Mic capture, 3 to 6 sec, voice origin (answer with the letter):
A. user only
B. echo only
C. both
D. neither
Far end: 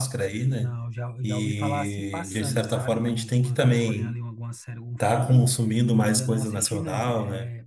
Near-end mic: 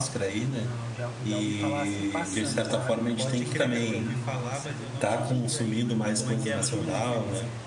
C